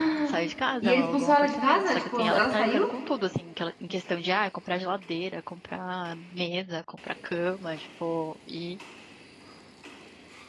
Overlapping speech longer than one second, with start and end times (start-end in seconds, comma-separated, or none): 0.8-2.9